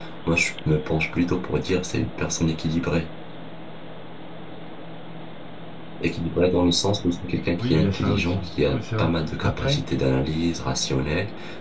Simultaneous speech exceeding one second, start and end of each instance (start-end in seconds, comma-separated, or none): 7.6-9.8